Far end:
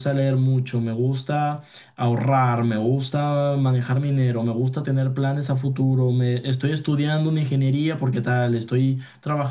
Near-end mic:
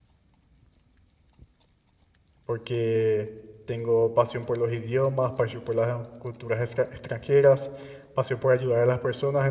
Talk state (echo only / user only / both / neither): user only